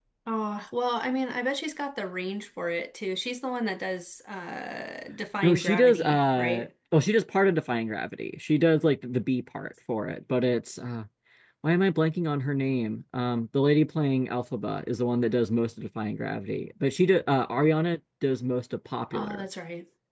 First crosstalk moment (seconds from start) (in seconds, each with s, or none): 5.4 s